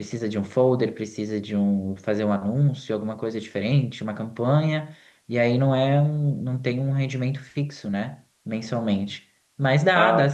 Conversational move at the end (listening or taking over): listening